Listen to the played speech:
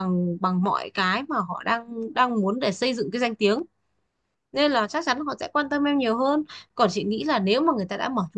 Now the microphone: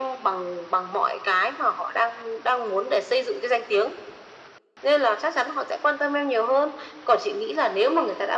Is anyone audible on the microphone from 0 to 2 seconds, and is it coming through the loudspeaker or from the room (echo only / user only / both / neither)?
echo only